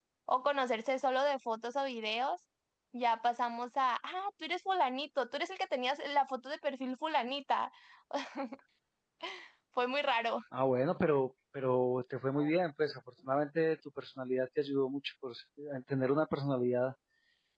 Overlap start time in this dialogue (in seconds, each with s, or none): none